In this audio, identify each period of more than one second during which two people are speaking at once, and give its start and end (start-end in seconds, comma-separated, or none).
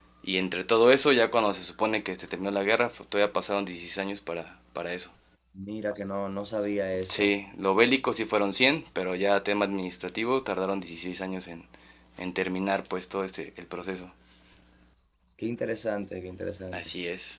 none